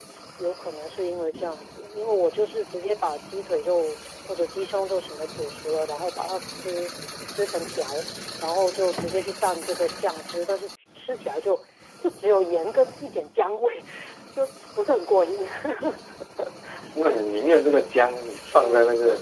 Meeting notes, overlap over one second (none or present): none